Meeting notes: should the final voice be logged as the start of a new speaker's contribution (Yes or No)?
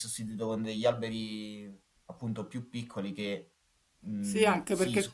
Yes